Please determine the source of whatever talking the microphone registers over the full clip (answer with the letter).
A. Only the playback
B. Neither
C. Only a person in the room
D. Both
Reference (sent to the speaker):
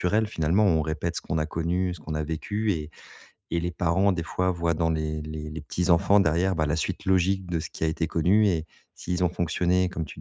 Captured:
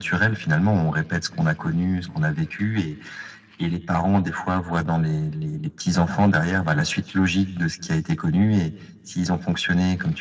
A